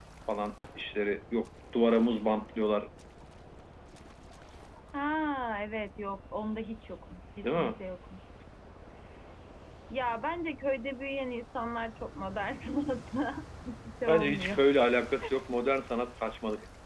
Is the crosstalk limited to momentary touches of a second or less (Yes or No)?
Yes